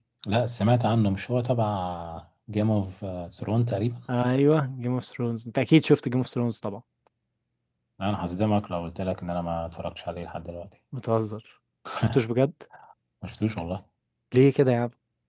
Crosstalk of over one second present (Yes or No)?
No